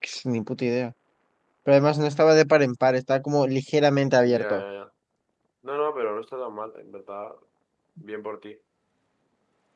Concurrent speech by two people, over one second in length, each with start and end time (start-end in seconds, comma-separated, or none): none